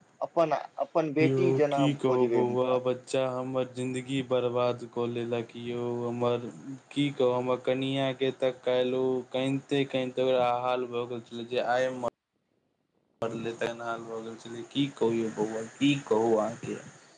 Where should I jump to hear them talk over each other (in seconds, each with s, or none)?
1.2 s